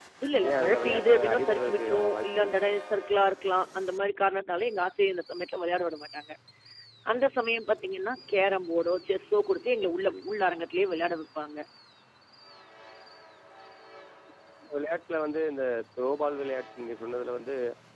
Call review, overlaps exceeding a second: present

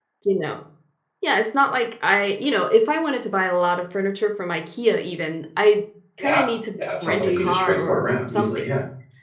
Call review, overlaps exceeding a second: present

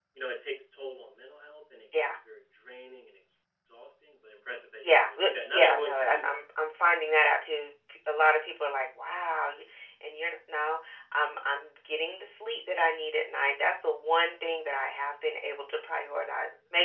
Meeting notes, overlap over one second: present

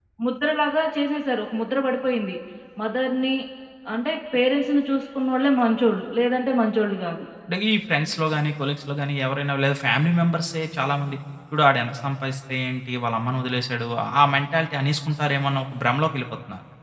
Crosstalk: none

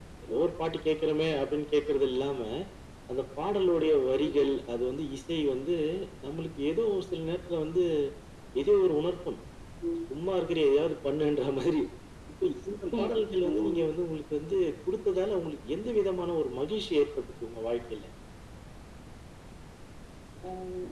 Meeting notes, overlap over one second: none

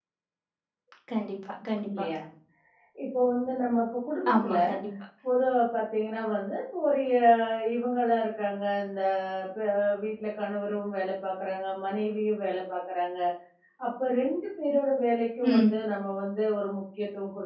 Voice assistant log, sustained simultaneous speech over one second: none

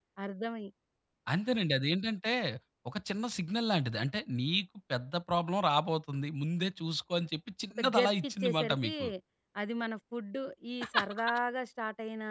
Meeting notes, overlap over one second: present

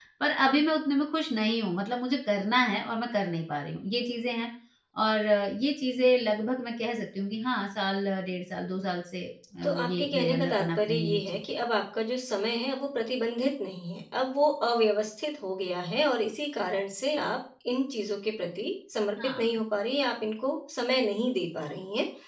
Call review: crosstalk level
present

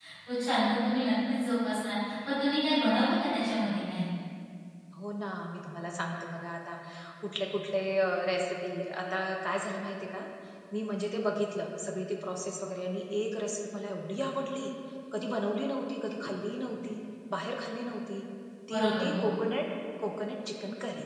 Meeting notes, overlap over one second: none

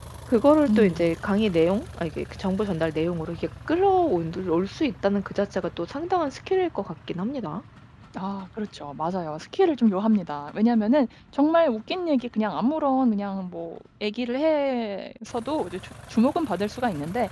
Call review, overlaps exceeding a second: none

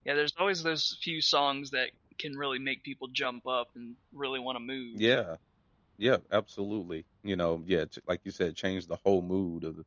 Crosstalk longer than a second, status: none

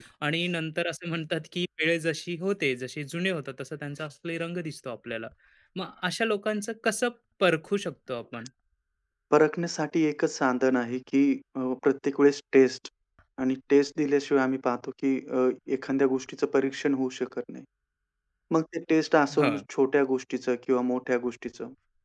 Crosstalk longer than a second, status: none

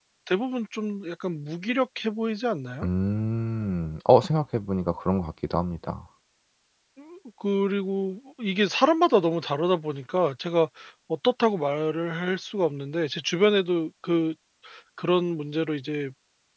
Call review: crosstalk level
none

